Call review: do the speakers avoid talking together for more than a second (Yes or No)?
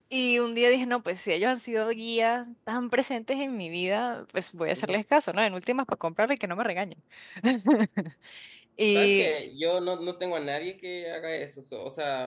Yes